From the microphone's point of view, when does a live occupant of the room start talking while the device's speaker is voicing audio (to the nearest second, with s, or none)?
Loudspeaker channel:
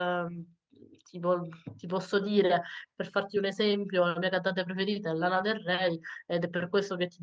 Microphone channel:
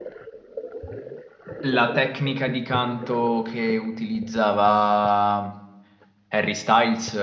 2 s